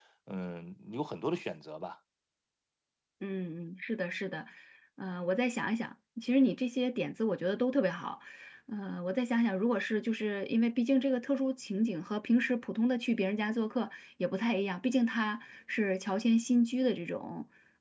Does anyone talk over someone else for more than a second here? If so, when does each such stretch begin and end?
none

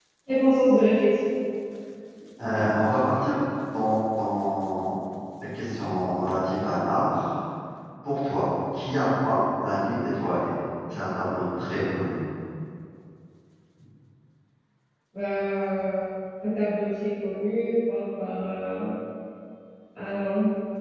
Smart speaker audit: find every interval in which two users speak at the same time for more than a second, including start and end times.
none

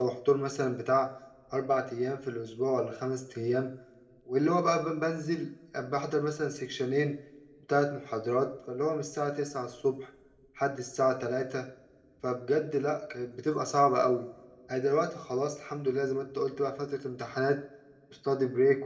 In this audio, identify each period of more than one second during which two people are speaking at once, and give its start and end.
none

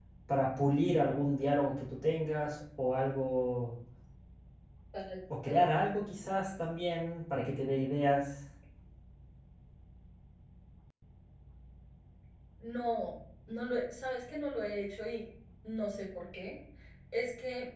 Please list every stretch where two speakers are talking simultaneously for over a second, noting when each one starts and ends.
none

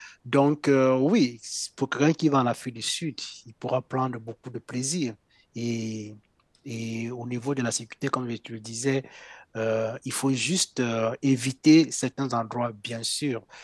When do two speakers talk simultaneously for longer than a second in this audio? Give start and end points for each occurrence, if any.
none

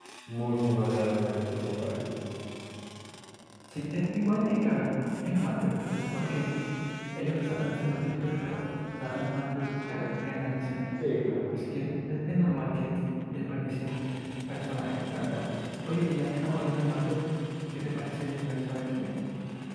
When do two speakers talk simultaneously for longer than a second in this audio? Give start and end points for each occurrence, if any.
none

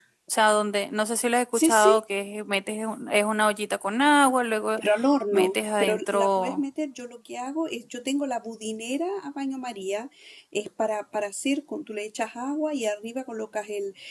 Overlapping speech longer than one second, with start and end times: 5.3-6.6

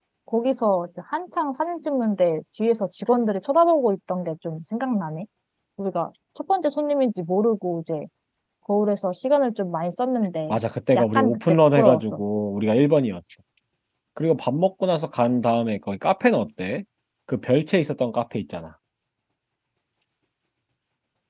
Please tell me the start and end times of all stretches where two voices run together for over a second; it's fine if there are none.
10.9-12.2

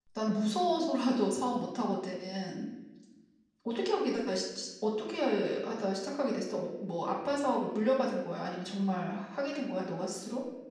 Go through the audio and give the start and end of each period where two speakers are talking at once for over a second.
none

